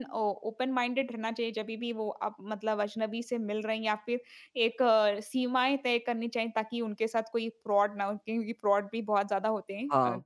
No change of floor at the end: No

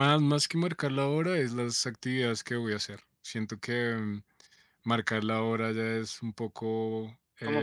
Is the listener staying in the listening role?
No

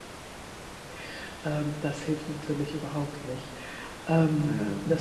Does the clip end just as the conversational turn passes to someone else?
No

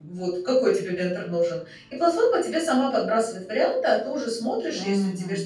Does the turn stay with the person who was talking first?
Yes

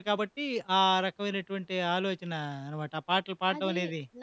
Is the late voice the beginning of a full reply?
Yes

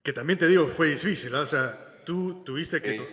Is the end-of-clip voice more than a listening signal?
No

